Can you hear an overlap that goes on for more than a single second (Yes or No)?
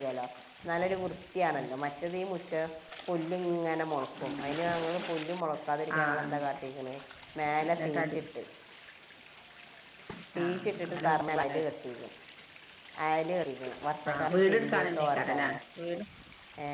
Yes